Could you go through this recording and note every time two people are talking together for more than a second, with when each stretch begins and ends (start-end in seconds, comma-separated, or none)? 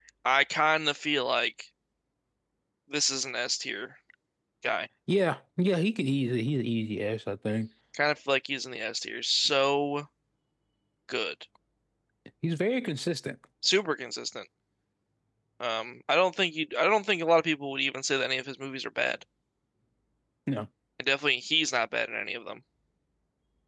none